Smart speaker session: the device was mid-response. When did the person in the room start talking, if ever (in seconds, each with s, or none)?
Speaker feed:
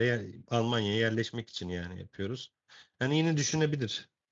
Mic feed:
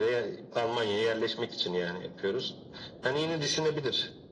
none